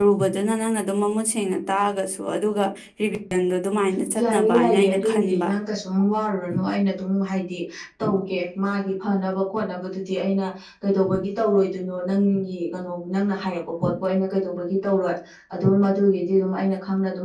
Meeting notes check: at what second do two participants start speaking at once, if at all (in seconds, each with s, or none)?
4.2 s